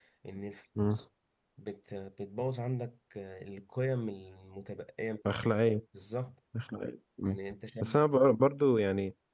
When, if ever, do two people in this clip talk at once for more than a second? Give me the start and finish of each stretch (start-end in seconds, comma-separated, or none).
none